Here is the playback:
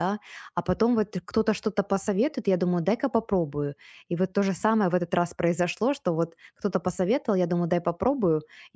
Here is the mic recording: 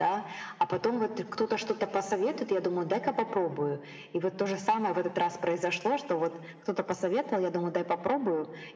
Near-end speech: none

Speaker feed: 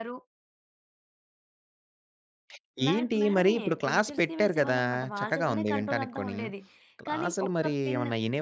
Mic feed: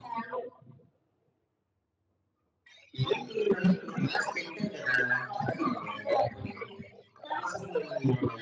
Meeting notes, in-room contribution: none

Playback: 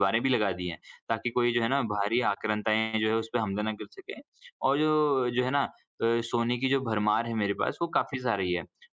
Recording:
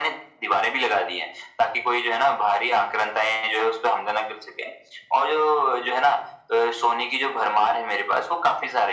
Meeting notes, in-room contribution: none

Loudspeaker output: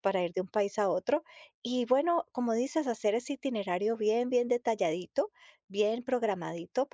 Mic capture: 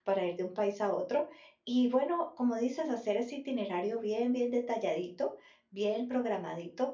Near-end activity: none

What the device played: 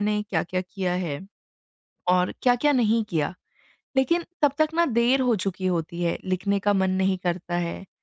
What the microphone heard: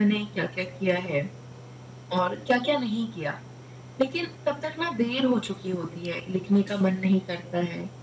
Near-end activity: none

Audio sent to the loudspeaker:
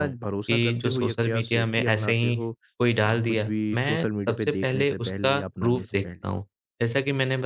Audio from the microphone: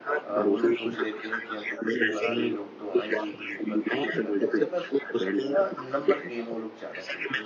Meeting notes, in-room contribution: present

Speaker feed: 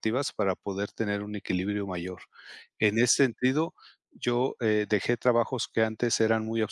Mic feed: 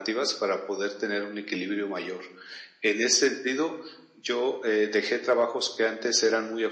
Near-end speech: none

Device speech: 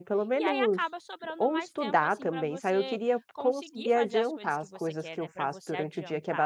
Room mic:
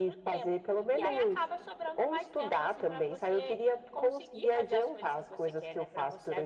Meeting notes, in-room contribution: none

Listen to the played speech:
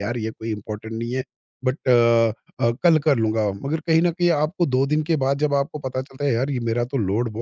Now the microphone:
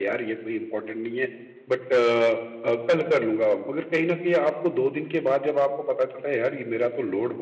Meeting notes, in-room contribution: none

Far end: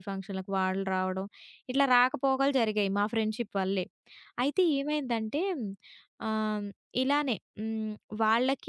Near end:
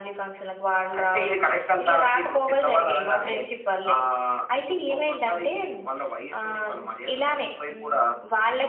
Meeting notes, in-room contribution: present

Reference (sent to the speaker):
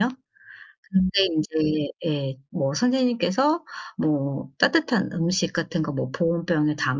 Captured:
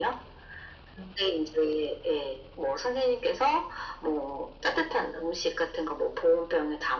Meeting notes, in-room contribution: none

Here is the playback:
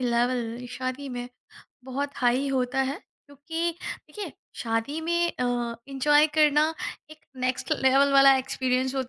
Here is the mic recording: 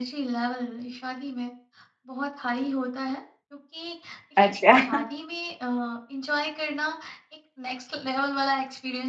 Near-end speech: present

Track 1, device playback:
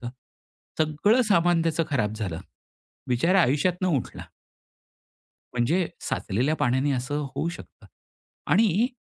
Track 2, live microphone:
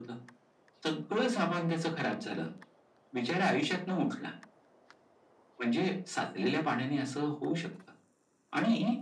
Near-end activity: none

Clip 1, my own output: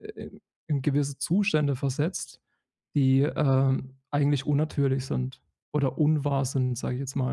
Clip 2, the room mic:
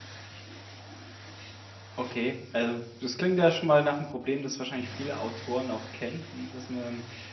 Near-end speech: present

